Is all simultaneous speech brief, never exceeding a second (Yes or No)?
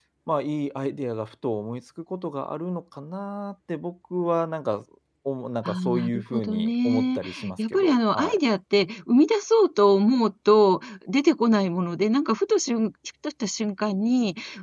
No